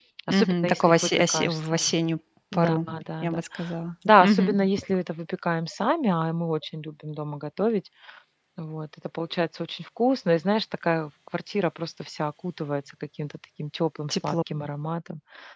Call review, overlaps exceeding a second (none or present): present